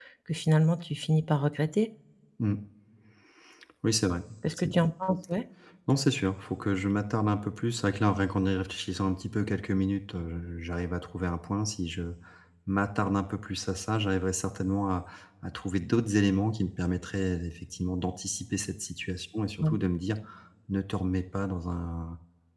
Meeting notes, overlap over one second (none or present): none